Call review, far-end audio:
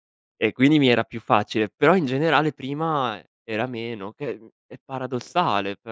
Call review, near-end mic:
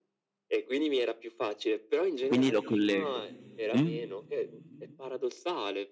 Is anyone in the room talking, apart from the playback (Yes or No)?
Yes